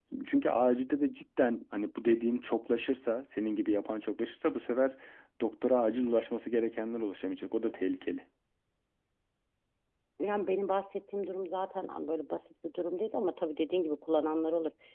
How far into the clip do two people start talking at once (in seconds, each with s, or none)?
none